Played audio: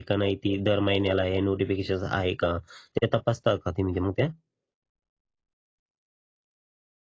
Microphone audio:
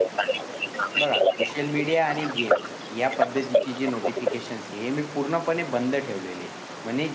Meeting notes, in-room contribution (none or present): present